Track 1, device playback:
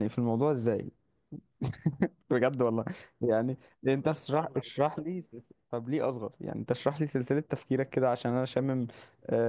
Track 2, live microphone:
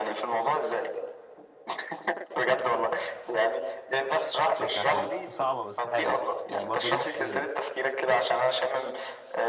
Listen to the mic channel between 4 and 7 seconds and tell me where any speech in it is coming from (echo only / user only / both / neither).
both